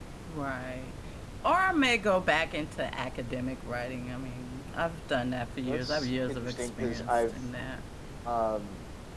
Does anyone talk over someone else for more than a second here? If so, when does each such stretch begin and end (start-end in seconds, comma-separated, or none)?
5.6-7.4